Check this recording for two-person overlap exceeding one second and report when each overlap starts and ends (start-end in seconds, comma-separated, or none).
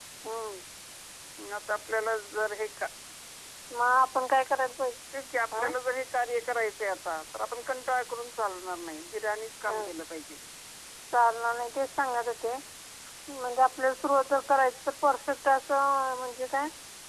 none